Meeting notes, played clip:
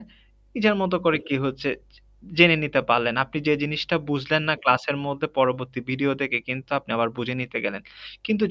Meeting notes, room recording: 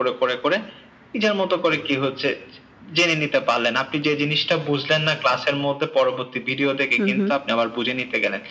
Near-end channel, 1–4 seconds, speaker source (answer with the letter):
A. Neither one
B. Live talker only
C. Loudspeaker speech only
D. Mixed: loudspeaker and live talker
C